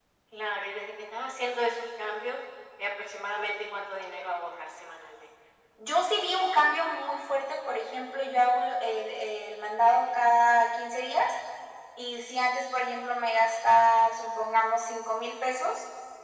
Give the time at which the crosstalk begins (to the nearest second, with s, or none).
none